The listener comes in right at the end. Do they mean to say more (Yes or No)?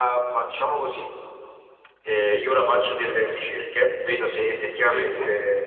No